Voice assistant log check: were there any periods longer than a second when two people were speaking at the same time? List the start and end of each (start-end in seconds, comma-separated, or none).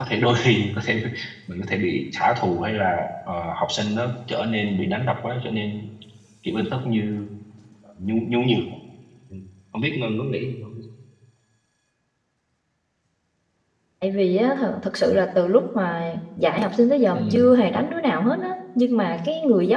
none